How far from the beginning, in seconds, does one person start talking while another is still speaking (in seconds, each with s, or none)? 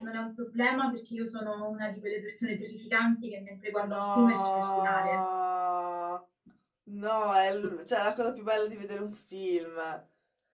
3.8 s